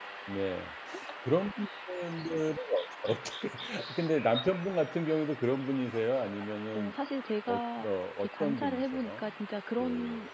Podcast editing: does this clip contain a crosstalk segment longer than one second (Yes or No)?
Yes